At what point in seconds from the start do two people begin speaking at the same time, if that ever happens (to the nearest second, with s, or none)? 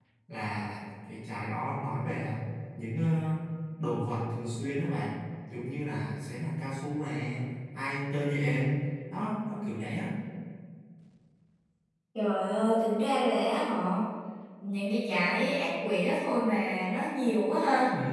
none